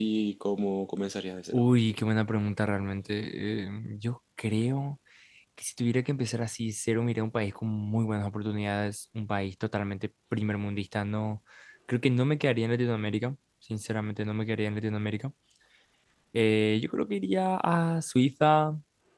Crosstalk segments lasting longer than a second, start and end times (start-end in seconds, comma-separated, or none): none